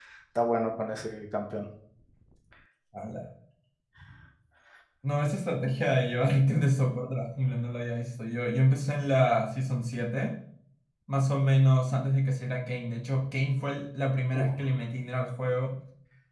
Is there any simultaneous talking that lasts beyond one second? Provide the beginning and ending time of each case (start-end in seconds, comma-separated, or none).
none